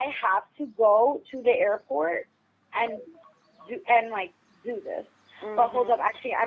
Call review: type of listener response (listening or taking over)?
listening